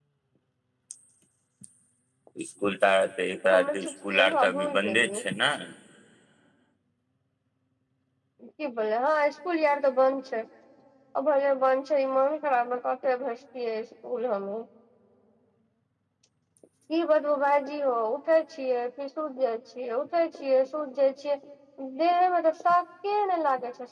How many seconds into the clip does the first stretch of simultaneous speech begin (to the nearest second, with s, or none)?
4 s